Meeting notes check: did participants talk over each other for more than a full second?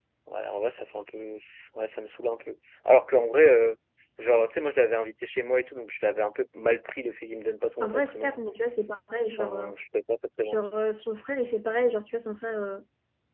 No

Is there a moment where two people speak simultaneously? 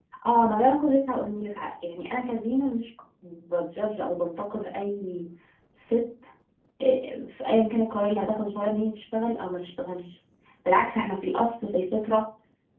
No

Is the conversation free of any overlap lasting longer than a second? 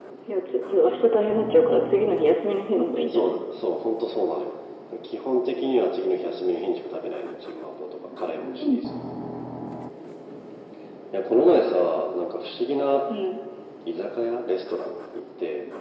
Yes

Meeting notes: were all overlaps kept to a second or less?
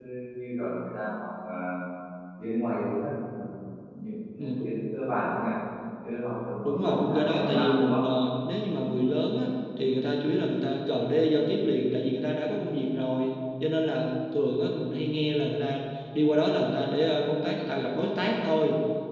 No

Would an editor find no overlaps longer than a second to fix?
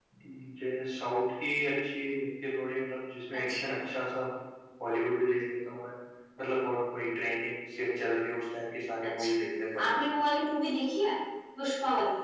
Yes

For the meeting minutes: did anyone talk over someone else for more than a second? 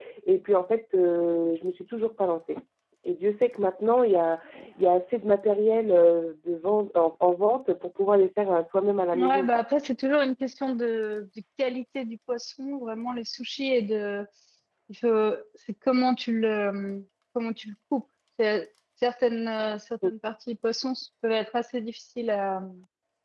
No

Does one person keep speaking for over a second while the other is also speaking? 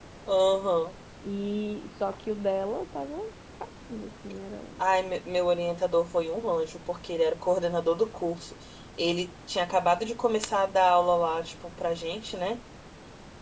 No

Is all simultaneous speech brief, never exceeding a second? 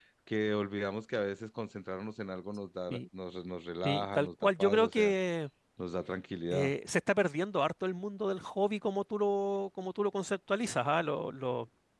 No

